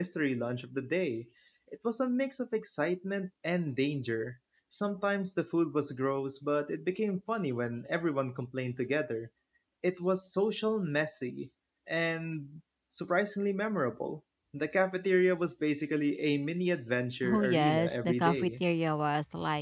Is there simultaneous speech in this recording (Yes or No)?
Yes